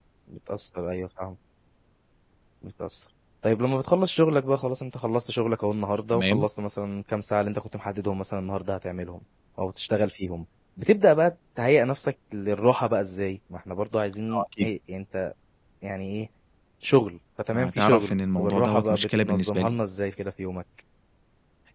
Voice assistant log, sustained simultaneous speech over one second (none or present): present